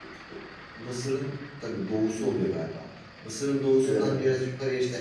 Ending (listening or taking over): listening